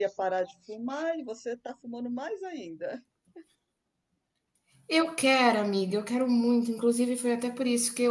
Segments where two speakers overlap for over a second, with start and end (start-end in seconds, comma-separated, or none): none